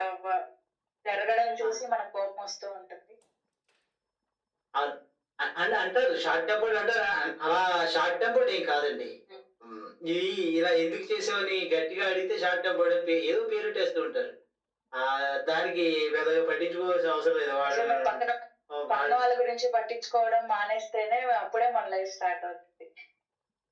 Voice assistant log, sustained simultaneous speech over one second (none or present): none